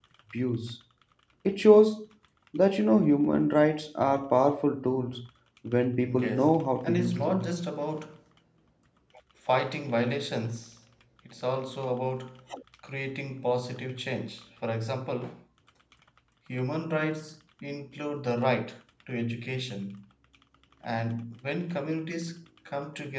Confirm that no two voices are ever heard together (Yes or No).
No